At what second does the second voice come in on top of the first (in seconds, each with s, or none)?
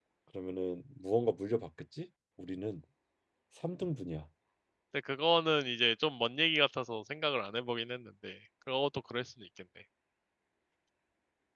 none